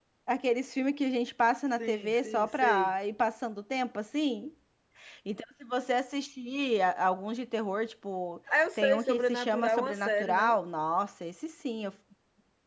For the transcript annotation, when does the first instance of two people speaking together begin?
2 s

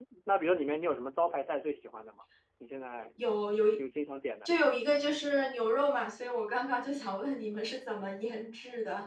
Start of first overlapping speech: none

